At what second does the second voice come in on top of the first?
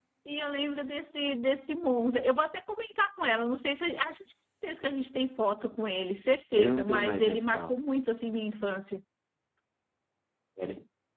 6.6 s

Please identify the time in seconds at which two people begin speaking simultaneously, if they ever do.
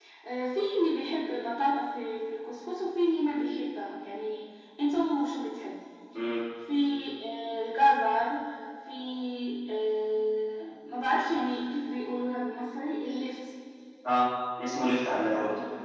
none

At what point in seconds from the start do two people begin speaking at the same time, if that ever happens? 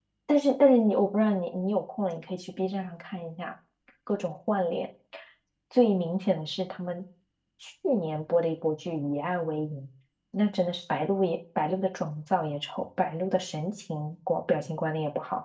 none

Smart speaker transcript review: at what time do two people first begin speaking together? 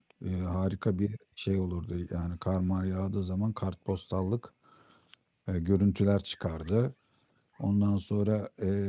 none

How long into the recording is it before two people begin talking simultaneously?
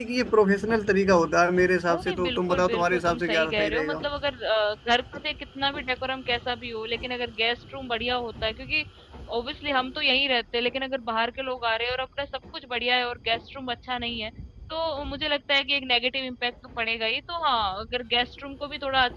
1.9 s

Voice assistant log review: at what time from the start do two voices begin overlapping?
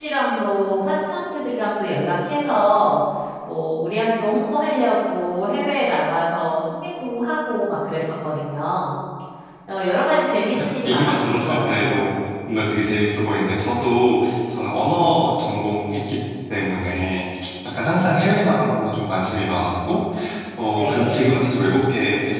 10.8 s

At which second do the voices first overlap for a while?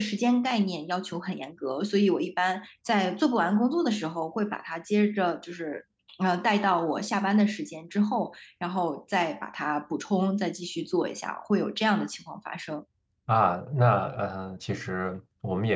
none

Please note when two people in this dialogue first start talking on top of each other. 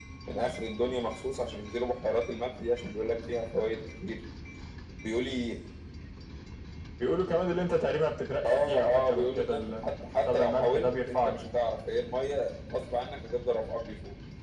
8.4 s

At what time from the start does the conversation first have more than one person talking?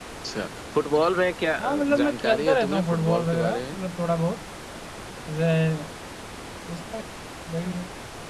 1.6 s

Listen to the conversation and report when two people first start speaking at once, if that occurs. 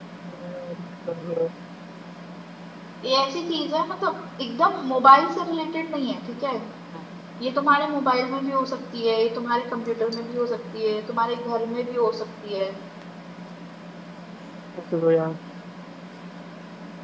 none

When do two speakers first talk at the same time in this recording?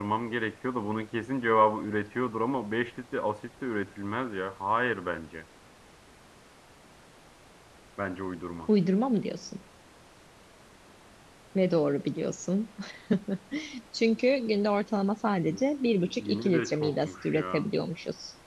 16.2 s

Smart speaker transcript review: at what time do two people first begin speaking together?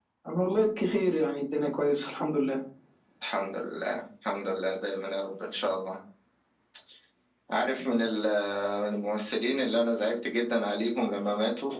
none

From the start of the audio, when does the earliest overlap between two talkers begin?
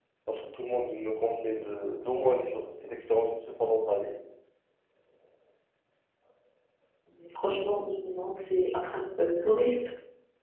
none

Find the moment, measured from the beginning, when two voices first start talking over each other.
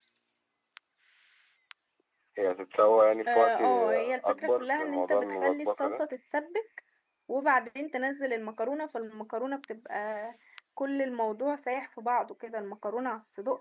3.3 s

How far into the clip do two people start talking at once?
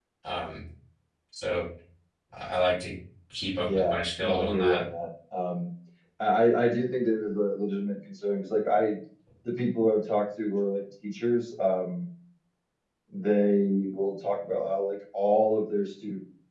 3.6 s

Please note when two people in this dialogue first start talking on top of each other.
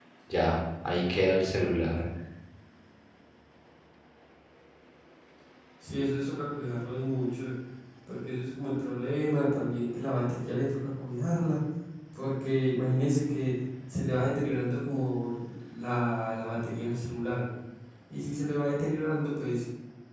none

